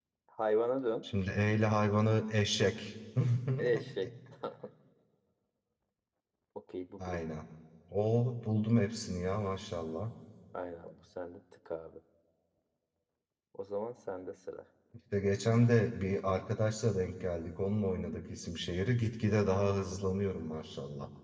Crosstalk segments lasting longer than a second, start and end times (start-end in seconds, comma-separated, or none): none